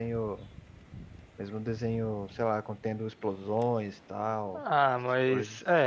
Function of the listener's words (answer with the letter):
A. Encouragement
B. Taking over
B